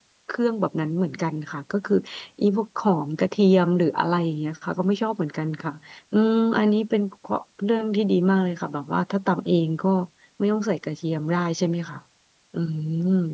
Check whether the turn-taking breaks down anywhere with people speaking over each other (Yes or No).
No